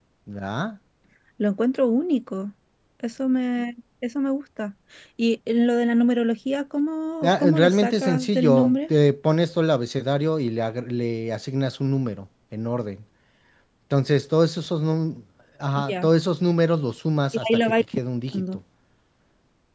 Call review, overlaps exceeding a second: present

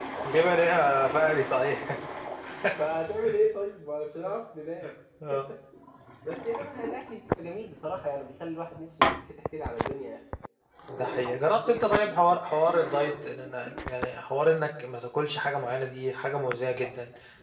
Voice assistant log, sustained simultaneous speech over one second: none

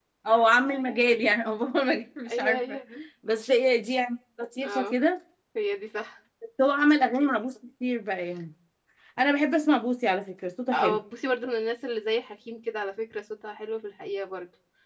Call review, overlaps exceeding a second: none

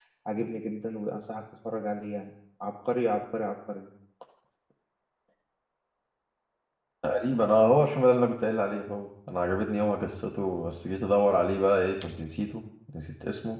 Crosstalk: none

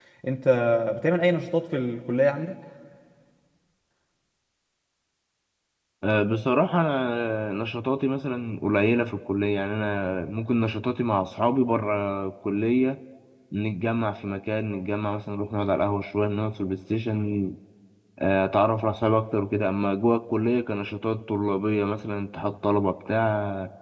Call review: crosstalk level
none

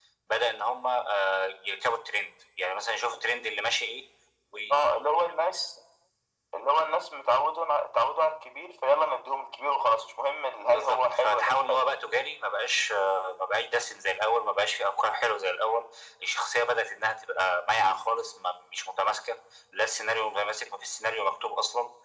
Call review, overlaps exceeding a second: present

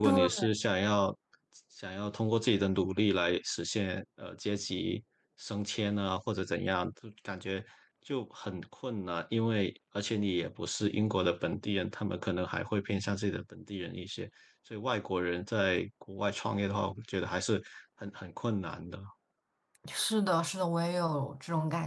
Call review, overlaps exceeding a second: none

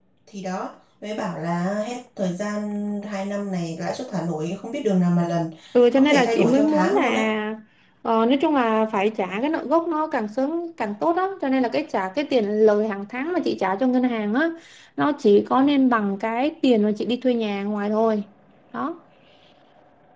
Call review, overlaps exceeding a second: present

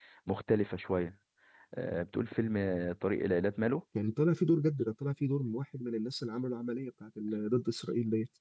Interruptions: none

